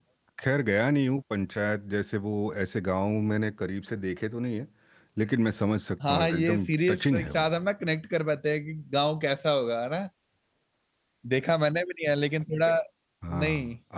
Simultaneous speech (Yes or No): Yes